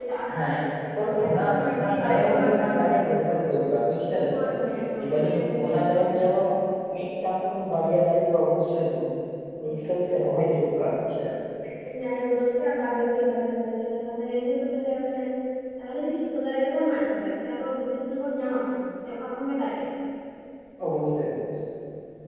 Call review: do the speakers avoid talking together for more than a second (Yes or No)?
No